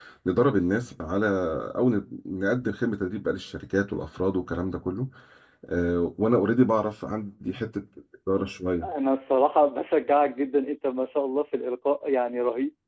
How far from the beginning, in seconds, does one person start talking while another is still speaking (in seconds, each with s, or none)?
none